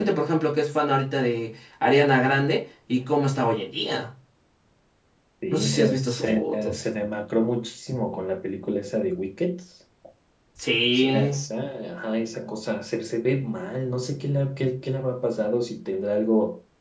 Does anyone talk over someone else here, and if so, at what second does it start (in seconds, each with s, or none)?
5.5 s